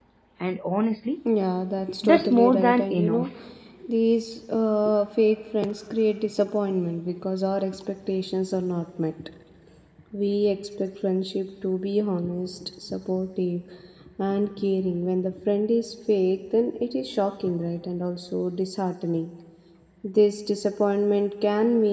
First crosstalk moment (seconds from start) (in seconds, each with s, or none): 2.0 s